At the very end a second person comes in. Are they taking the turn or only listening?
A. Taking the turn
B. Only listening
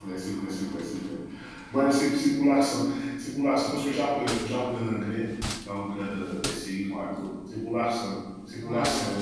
A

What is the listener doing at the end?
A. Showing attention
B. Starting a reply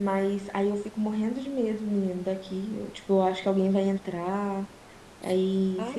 B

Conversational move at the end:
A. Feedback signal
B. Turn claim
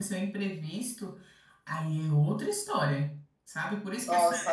A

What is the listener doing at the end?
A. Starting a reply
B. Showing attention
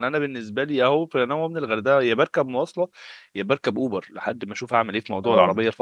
B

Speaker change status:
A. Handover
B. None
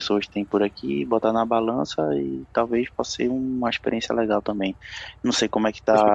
A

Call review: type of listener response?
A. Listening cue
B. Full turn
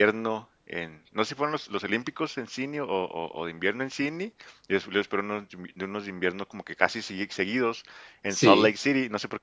A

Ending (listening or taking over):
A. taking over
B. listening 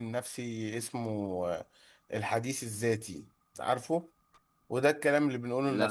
B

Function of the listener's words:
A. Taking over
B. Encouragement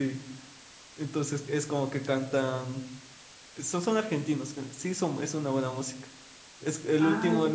B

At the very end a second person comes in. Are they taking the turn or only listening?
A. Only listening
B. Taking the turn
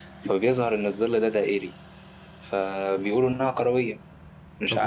B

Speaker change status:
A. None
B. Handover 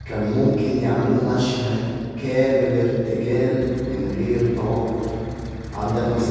A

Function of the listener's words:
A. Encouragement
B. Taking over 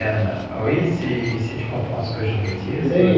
B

